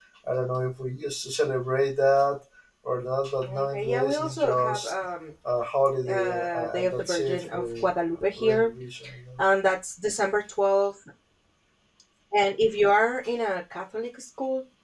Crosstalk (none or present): present